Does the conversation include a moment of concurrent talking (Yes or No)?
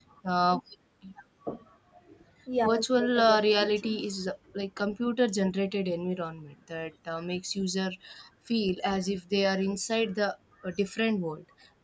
Yes